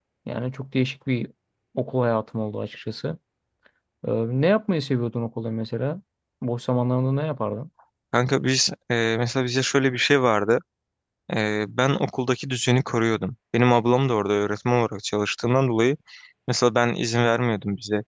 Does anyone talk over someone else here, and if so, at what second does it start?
none

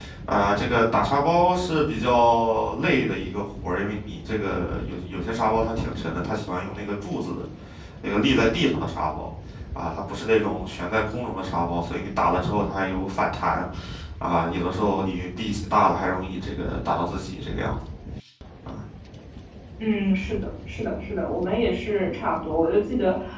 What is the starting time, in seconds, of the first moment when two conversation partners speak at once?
none

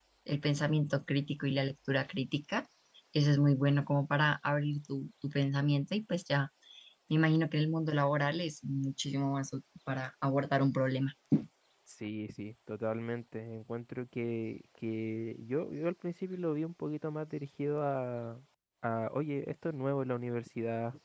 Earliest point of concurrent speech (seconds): none

